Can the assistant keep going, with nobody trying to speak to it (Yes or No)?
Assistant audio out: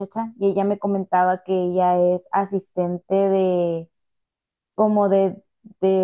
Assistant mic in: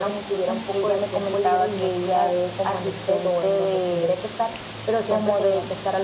No